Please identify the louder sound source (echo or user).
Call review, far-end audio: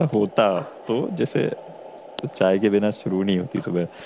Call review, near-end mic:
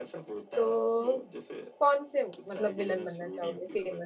user